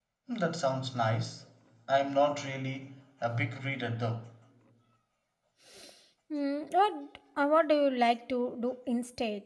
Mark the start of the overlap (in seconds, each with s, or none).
none